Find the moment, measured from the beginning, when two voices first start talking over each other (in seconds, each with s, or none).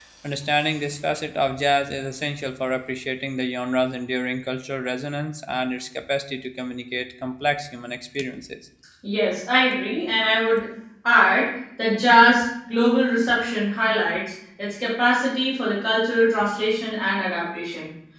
none